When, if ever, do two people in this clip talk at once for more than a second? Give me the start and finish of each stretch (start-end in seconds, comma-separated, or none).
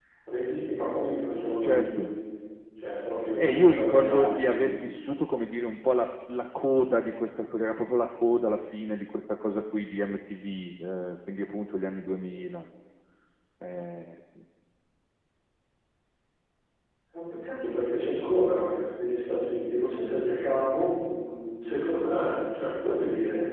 3.4-4.8